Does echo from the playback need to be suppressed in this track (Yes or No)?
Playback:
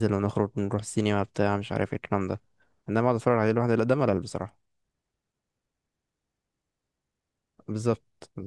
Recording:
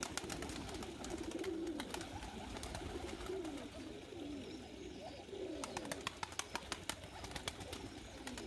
No